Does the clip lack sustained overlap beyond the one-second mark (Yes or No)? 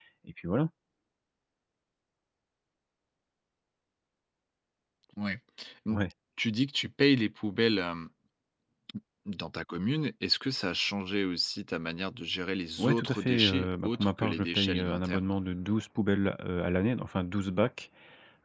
No